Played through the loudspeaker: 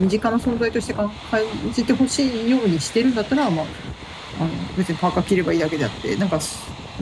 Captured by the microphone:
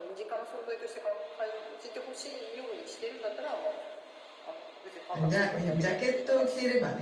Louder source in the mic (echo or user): user